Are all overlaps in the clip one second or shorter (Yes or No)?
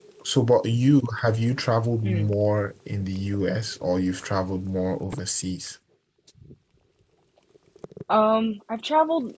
Yes